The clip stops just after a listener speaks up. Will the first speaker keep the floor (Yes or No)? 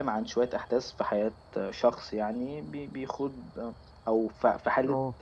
Yes